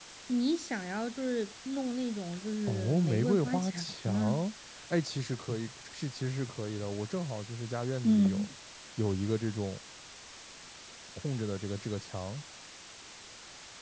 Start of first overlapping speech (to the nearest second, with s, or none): 3 s